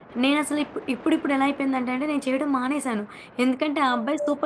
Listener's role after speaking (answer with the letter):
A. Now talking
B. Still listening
B